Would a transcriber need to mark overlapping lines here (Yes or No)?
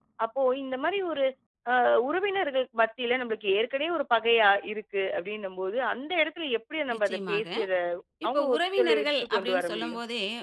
Yes